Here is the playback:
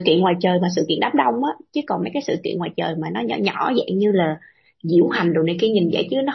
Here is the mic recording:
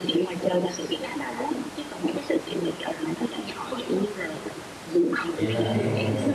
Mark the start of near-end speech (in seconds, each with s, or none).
5.4 s